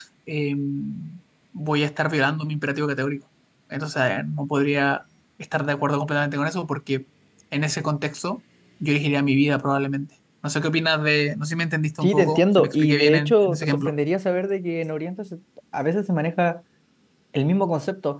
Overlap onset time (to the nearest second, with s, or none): 12 s